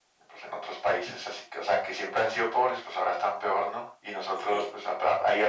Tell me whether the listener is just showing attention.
Yes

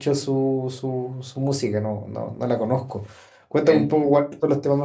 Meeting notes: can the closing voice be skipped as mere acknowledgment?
Yes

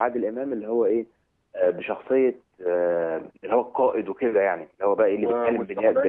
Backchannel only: No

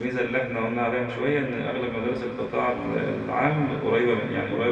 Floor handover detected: No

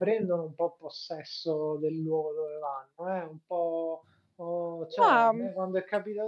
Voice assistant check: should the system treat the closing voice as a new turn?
No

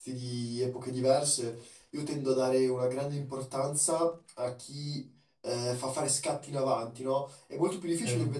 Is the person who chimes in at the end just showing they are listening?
Yes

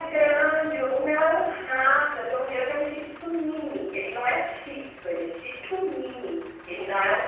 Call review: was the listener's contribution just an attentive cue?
Yes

